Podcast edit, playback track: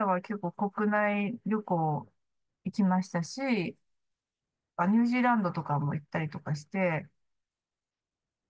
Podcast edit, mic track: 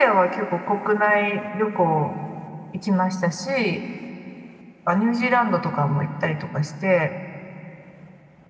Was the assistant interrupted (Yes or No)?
No